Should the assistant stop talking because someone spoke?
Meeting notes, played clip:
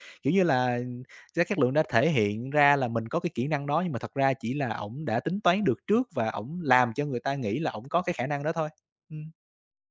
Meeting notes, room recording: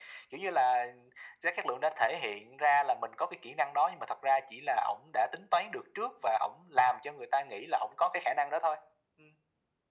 No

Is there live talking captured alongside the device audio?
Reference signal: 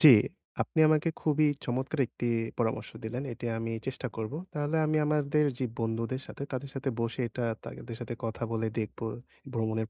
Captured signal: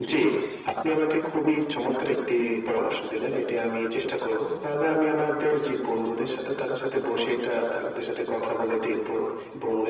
No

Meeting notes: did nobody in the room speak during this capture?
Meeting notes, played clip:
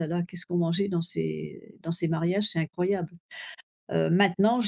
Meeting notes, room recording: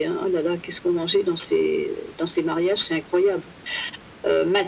Yes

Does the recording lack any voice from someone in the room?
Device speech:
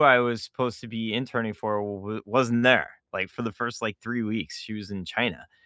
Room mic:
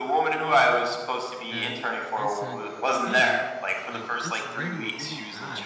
No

